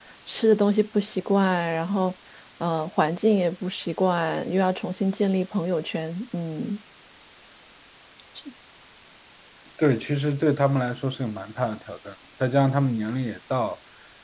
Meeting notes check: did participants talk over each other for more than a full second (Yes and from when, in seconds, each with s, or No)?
No